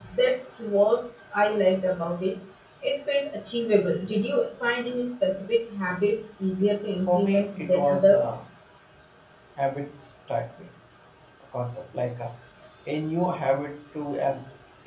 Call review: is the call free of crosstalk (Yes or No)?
No